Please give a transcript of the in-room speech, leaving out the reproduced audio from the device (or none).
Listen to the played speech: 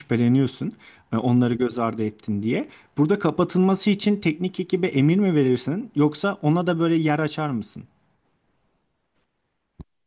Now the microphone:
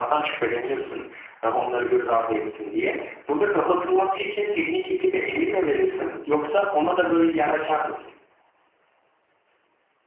none